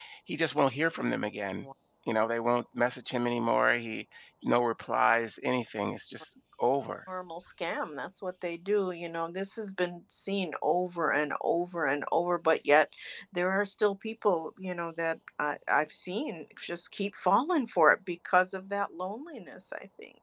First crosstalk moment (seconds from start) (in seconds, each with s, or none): none